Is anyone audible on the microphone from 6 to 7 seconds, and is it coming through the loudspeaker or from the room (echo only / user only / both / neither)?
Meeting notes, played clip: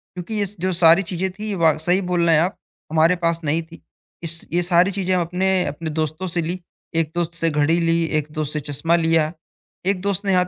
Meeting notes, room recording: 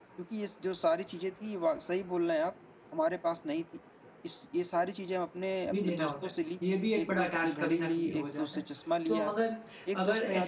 both